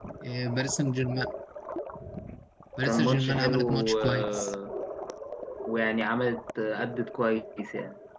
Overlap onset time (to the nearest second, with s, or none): 3 s